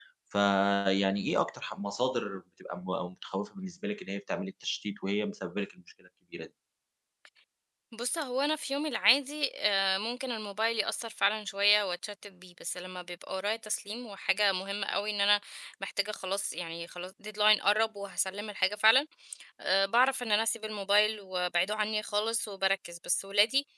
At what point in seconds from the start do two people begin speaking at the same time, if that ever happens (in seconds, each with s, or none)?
none